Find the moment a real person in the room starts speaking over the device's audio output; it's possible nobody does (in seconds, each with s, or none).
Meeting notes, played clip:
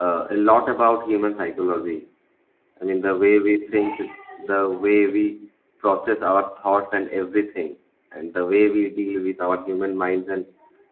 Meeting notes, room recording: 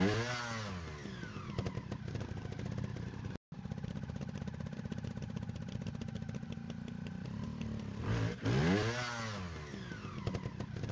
none